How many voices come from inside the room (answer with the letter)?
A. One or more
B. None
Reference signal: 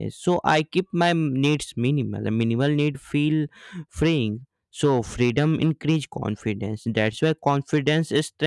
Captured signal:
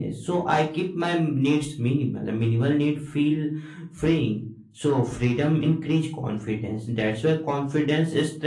B